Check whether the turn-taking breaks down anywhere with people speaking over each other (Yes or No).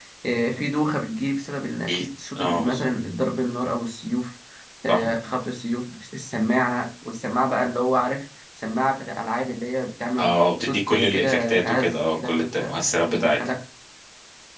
Yes